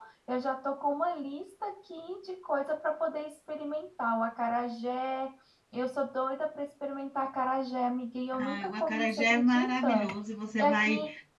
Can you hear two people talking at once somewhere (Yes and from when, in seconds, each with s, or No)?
Yes, from 8.4 s